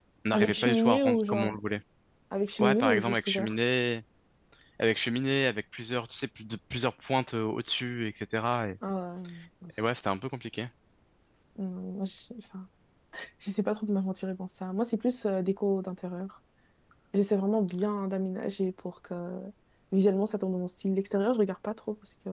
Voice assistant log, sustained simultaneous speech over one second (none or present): present